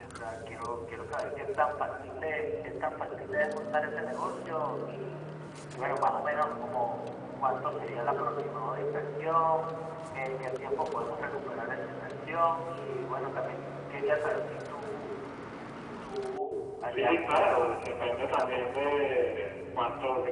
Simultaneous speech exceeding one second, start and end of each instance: 16.9-19.0

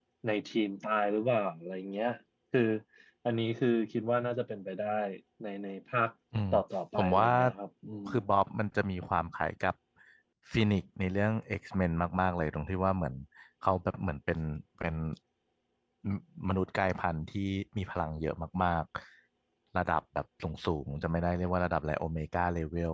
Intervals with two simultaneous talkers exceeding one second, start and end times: none

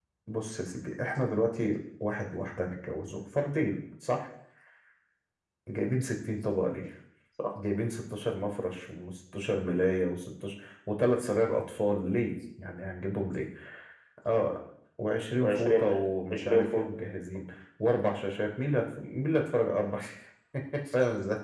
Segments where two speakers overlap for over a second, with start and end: 15.4-16.9

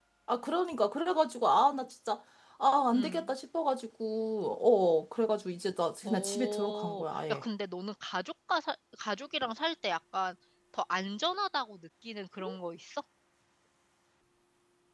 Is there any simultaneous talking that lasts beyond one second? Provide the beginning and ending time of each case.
6.0-7.4

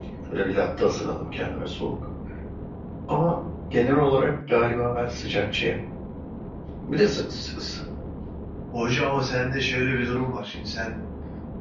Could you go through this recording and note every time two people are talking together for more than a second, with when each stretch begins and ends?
none

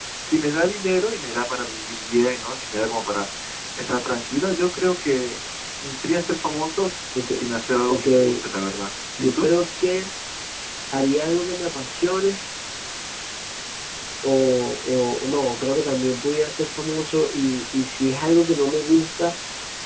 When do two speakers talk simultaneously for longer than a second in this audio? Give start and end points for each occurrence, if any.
none

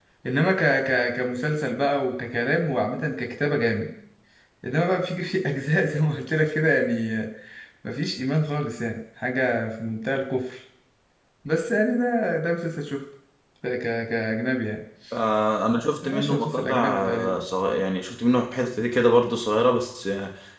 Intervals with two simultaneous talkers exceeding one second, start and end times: 16.0-17.3

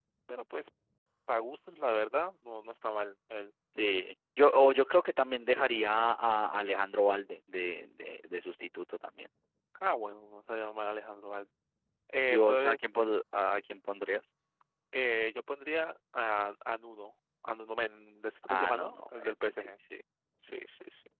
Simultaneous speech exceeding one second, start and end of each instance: 18.5-19.7

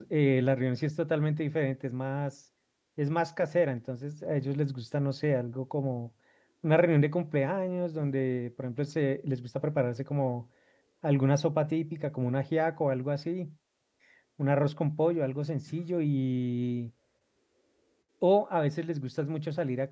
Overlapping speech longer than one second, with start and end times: none

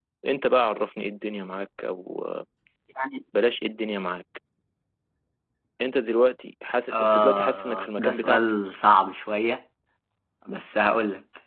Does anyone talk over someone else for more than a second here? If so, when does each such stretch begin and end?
6.9-8.4

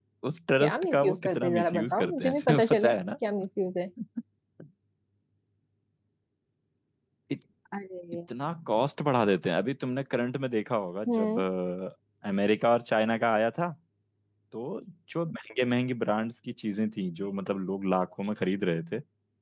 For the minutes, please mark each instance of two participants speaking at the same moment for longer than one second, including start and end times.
0.6-2.9

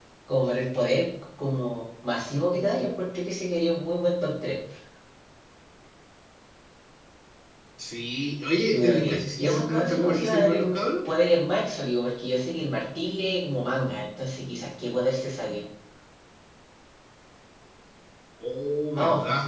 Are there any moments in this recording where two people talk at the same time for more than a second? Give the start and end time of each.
8.7-10.8

